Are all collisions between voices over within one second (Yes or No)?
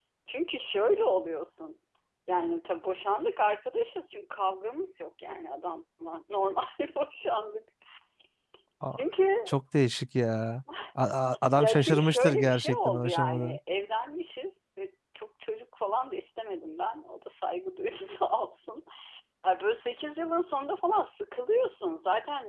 No